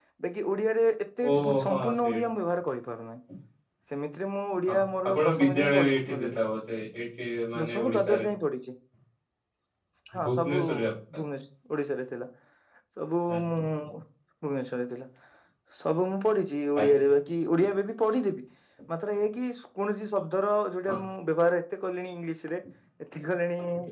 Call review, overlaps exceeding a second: present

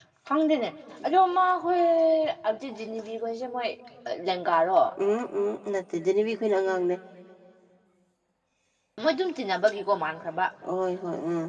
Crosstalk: none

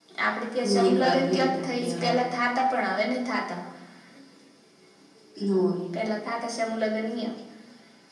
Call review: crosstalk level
present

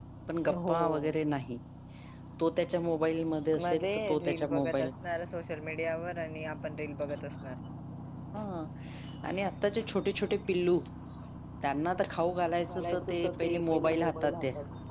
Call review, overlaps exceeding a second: present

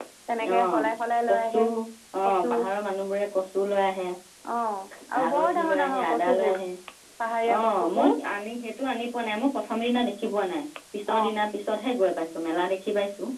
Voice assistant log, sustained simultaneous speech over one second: present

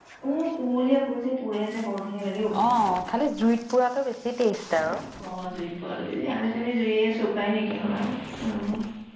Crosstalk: none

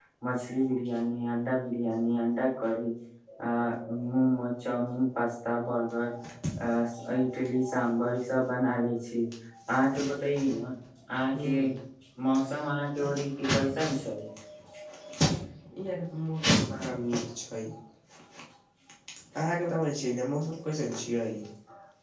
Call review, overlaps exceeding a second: none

